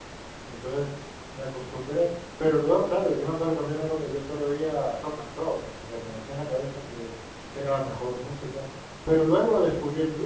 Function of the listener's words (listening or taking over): listening